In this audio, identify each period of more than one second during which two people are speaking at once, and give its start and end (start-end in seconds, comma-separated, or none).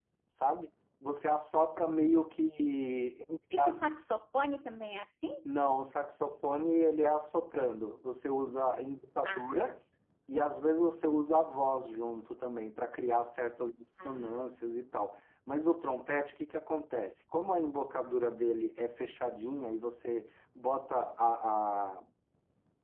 none